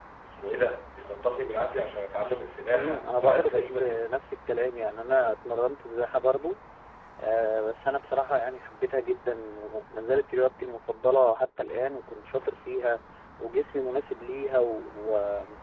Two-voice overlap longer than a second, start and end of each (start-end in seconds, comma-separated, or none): 2.7-4.0